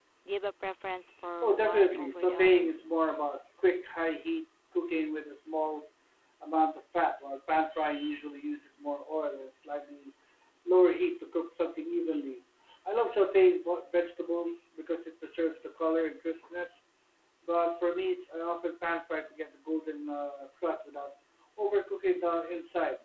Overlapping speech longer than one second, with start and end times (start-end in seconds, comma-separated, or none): 1.4-2.7